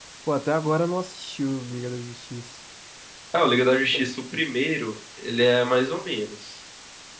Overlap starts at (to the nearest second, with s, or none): none